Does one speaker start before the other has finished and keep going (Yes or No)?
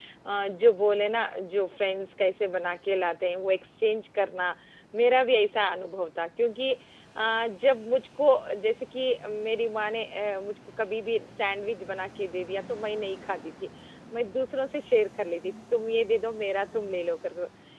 No